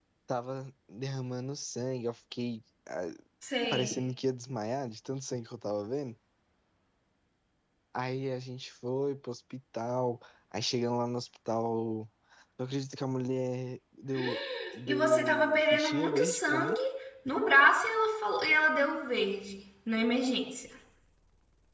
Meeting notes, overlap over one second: present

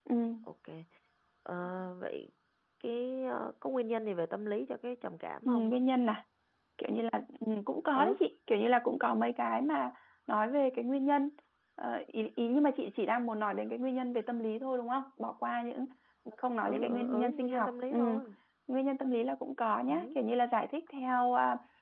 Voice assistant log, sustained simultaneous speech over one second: present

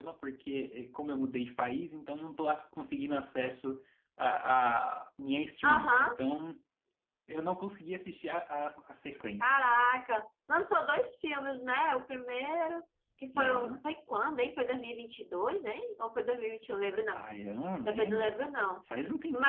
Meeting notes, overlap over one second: none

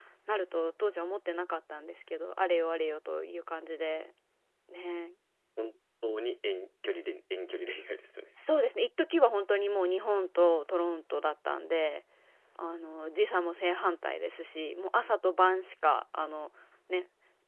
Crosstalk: none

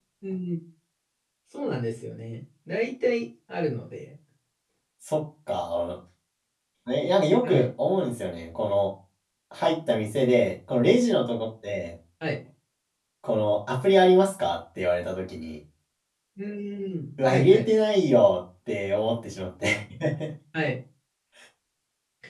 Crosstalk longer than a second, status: none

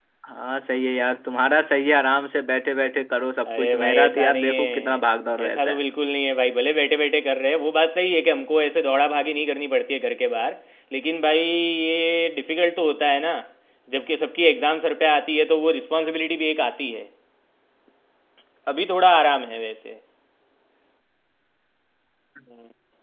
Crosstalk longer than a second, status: present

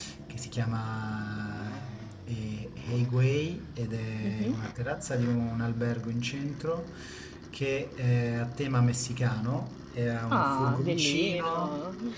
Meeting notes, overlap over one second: present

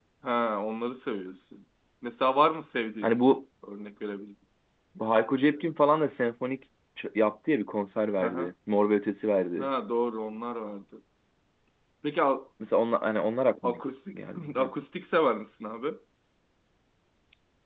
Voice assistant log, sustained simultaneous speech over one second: none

